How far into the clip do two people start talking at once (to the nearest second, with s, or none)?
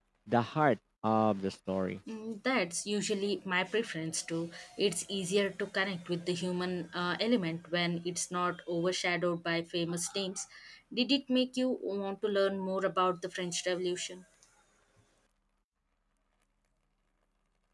none